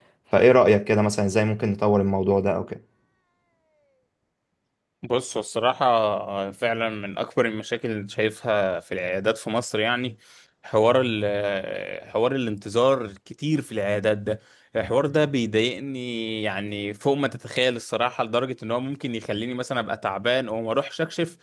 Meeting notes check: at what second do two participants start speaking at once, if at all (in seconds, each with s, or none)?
none